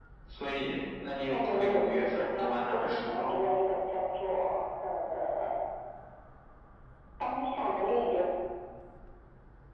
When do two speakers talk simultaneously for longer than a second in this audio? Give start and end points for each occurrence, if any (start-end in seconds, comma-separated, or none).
1.3-3.4